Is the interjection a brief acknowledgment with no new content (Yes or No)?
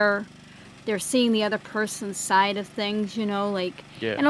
Yes